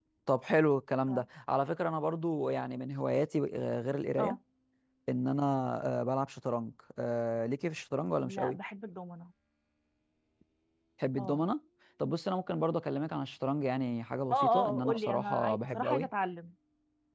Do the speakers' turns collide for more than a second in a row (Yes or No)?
Yes